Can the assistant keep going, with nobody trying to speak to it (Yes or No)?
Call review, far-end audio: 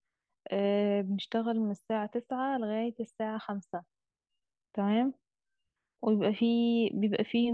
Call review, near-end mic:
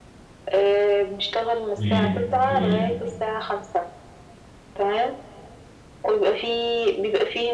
No